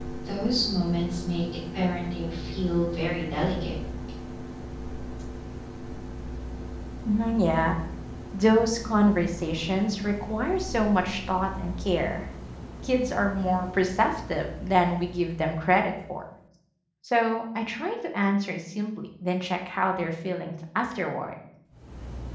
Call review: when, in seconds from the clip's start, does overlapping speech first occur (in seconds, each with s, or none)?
none